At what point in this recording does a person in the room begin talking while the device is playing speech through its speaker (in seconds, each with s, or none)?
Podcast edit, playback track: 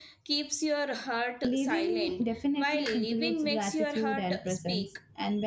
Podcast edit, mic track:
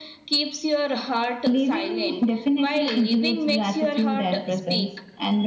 none